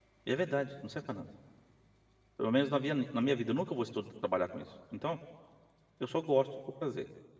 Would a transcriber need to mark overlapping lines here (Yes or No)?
No